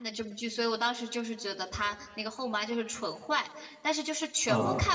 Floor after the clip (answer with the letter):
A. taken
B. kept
B